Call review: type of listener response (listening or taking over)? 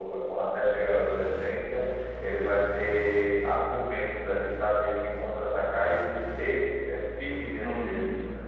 taking over